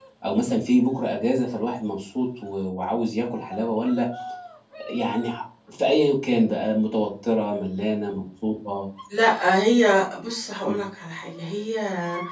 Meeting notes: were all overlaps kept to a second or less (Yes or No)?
Yes